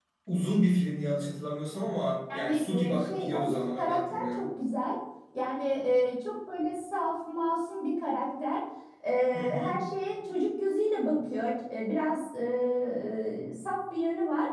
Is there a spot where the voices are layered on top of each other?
Yes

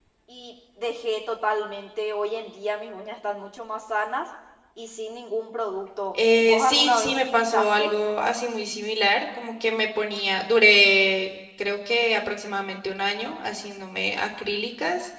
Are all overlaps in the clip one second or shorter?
No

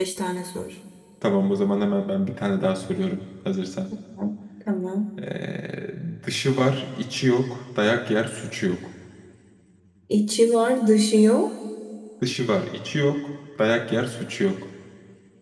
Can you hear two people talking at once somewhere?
No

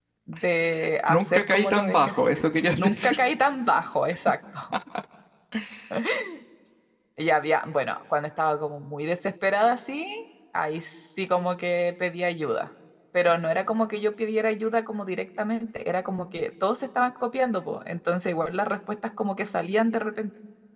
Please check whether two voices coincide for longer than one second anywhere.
Yes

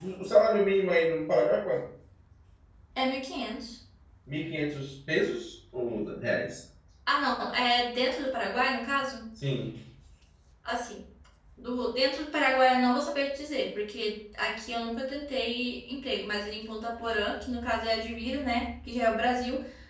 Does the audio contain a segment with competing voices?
No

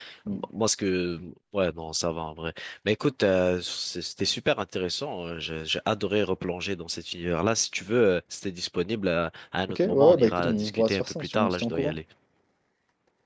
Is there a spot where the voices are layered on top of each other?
Yes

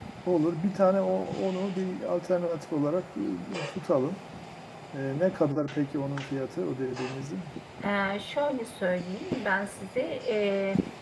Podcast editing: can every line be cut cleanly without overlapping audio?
Yes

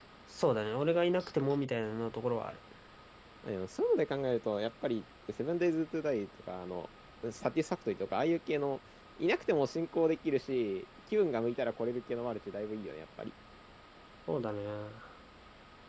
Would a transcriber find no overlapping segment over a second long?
Yes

